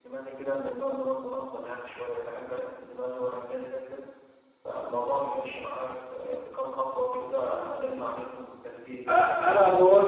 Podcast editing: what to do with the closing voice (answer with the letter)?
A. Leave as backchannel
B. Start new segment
B